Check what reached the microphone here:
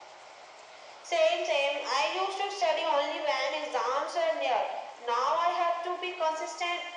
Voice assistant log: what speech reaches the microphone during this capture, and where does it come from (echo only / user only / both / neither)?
echo only